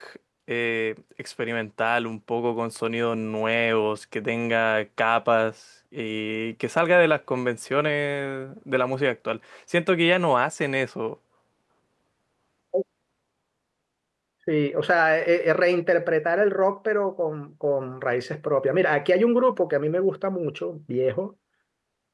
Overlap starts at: none

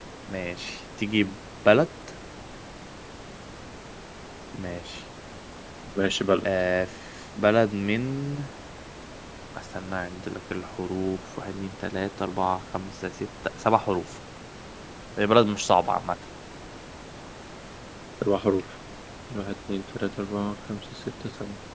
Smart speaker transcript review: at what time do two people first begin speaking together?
none

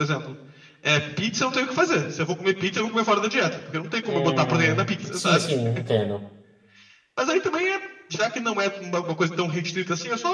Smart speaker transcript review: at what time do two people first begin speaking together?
4 s

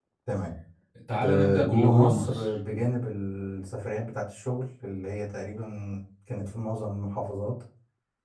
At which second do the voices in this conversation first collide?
1 s

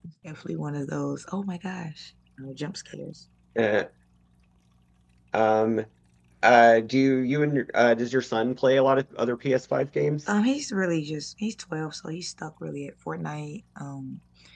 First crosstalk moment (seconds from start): none

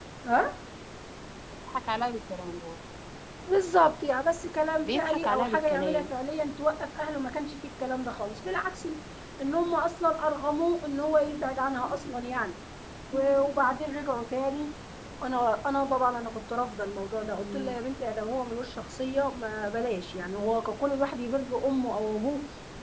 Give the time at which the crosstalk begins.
5 s

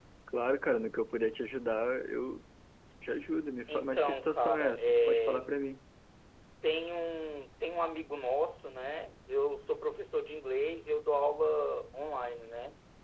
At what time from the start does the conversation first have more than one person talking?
4 s

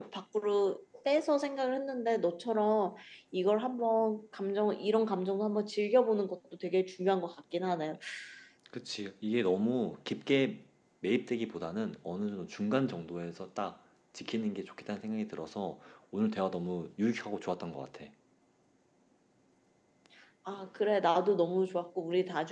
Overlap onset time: none

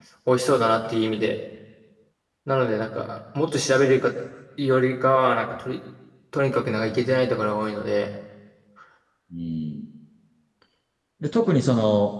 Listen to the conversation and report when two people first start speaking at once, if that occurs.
none

